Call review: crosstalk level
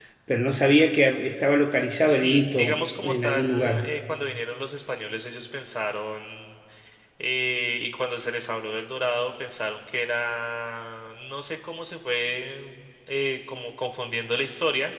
present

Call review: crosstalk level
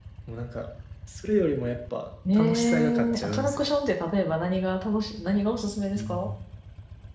present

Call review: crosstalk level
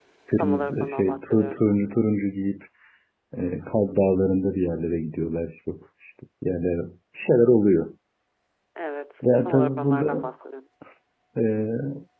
present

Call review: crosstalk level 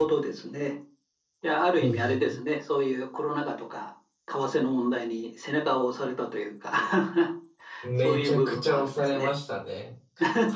present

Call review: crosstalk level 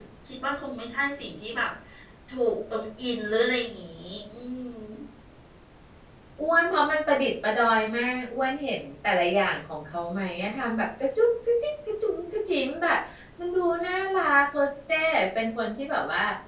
none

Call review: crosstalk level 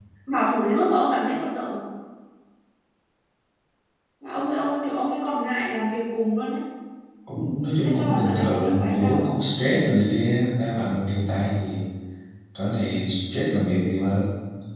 present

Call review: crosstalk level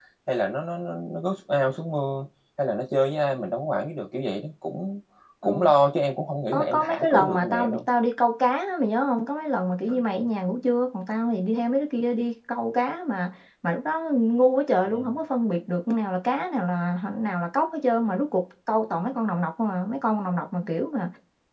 present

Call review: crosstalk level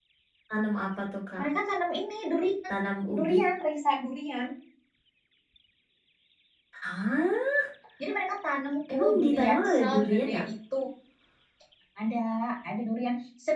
present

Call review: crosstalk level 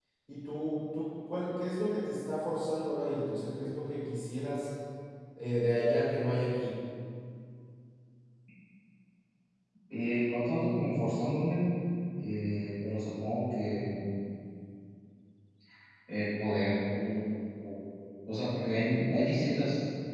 none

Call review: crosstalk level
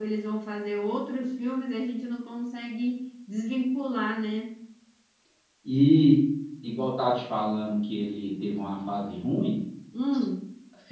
none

